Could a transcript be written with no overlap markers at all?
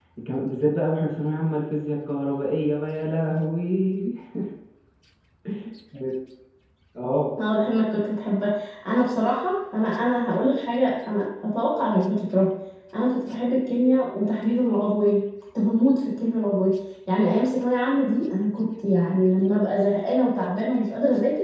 Yes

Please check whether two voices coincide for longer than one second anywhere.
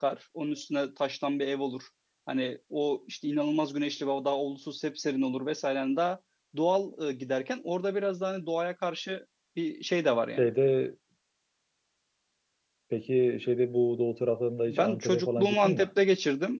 Yes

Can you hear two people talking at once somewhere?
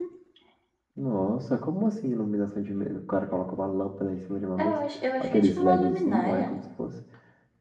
Yes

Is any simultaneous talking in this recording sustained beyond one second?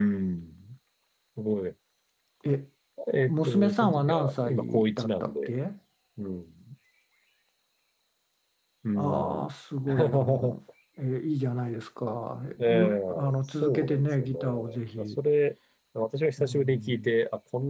Yes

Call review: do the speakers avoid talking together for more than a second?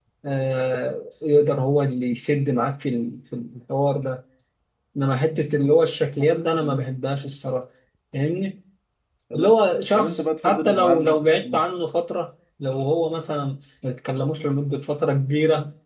No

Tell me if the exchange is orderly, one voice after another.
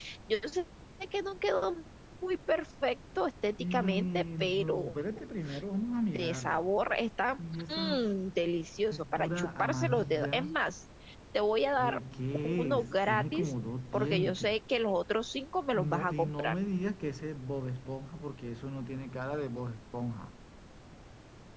No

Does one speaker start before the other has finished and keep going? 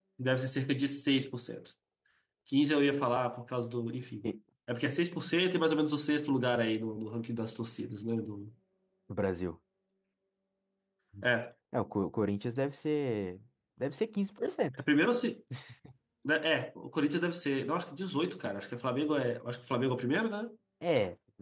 No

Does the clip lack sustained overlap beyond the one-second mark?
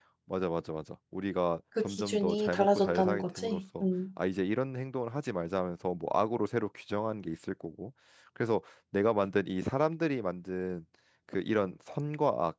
No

